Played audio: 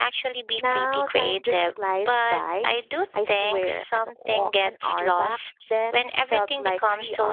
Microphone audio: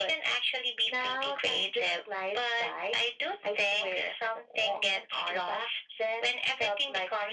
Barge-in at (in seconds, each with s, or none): none